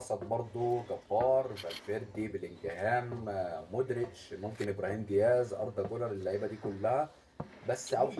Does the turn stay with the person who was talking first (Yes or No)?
Yes